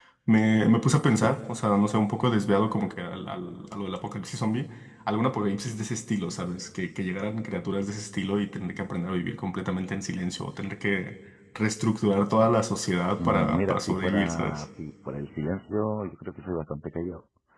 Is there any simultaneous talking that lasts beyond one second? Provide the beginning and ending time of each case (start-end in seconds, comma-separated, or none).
13.2-14.6